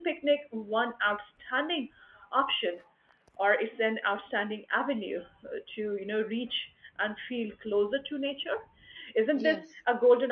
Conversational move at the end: listening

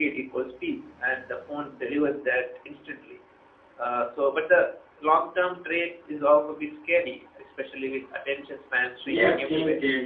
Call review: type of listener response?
taking over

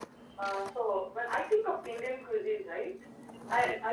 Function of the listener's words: listening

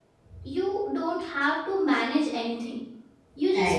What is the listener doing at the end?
listening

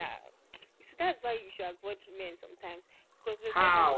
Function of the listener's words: taking over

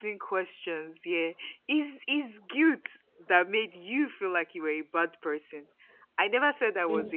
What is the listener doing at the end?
listening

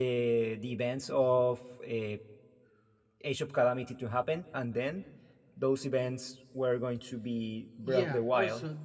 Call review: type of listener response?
taking over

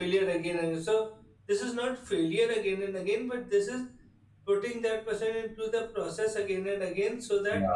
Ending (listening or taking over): listening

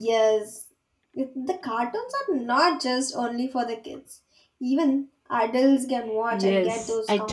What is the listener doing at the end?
taking over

